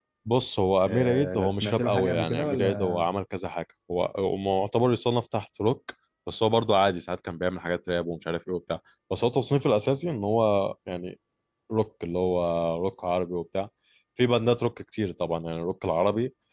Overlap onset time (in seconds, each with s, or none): 0.8 s